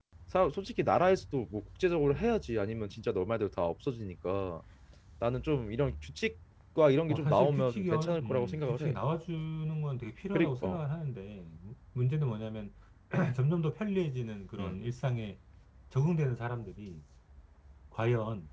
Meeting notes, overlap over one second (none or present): present